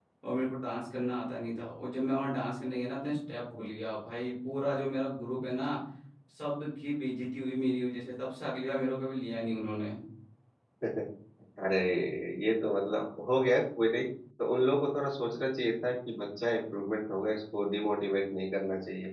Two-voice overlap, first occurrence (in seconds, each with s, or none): none